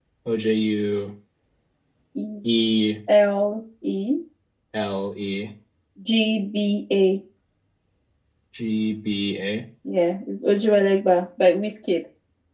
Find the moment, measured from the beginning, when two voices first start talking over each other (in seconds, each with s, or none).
none